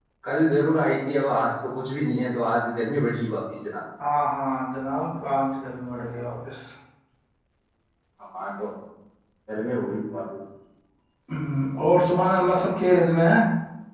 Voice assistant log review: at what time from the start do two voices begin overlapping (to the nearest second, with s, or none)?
none